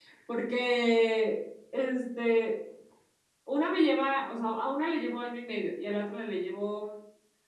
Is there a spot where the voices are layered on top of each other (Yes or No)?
No